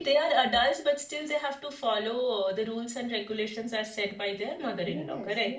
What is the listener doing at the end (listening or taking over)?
taking over